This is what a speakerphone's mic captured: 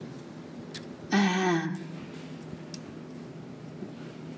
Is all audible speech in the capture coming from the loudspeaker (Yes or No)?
No